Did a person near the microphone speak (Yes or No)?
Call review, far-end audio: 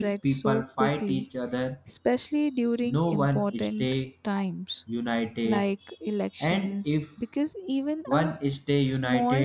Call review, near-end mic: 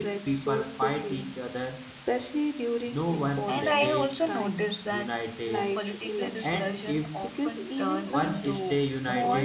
Yes